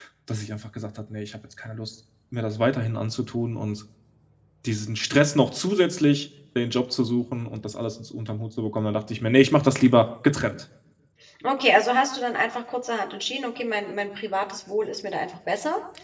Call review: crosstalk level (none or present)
none